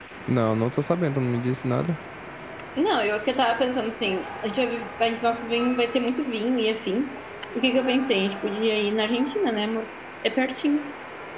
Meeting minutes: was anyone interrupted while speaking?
No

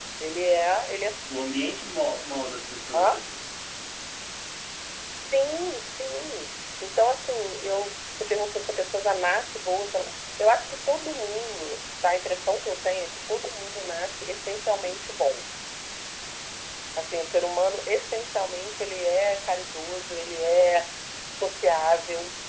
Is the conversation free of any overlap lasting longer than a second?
Yes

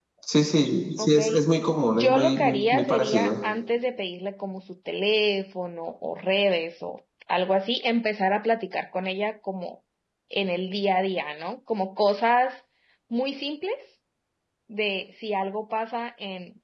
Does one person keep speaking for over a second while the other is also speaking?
Yes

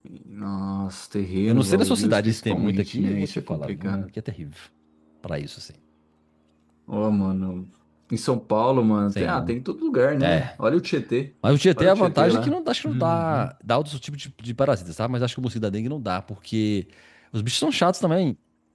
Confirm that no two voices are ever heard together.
No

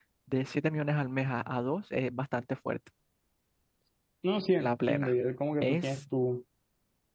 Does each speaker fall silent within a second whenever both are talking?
Yes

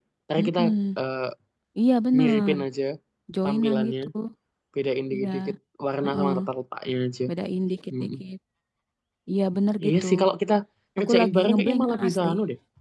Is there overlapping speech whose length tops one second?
Yes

